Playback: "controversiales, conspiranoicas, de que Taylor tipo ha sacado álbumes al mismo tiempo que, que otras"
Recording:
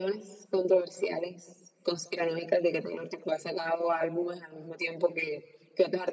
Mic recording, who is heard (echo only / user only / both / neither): echo only